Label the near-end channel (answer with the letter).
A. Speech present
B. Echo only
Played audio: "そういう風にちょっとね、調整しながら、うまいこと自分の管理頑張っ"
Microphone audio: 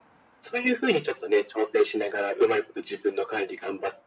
B